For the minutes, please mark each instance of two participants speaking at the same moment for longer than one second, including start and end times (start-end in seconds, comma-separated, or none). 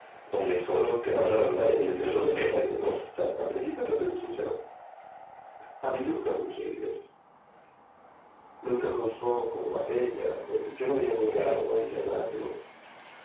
1.1-2.8